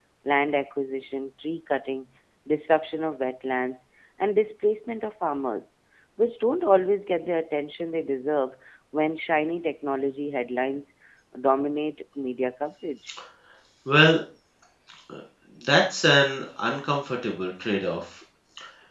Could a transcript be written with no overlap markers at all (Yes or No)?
Yes